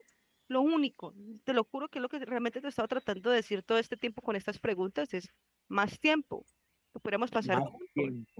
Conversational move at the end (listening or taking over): taking over